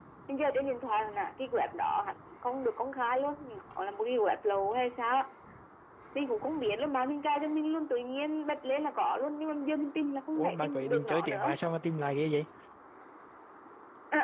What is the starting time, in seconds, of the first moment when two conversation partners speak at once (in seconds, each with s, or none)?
10.4 s